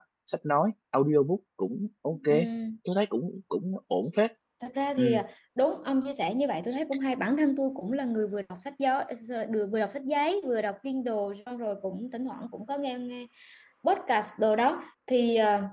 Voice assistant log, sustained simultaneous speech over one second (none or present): none